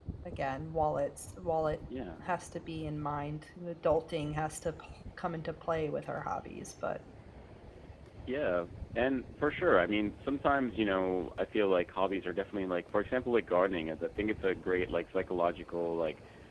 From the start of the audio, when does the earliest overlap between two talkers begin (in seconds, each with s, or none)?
none